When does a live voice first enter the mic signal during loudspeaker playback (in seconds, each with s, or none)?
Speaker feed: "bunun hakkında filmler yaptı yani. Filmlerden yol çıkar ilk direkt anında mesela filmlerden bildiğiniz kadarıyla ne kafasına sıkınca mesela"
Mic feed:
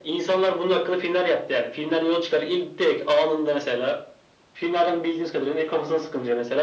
none